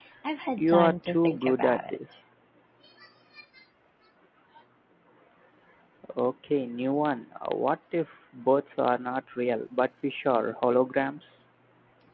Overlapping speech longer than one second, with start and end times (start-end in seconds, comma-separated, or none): 0.5-2.0